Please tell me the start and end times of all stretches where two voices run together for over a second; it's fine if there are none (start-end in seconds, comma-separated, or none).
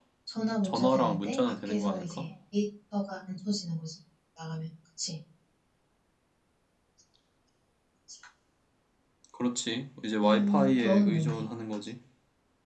0.6-2.3, 10.2-11.4